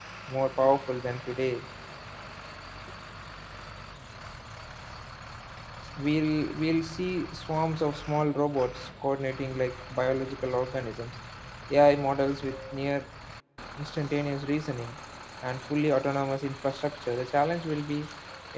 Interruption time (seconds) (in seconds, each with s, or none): none